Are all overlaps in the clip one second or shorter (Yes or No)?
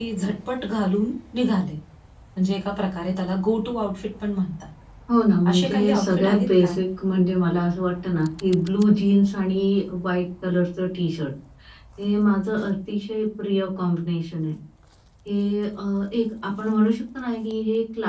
No